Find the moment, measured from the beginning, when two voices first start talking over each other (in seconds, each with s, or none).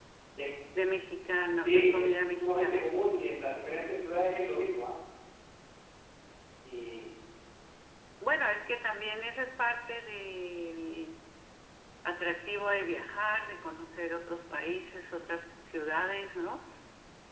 1.6 s